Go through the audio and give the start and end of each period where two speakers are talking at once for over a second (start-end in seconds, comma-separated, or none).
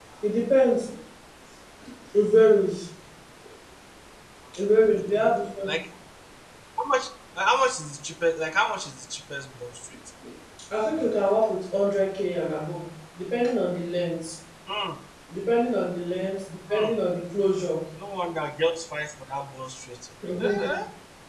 none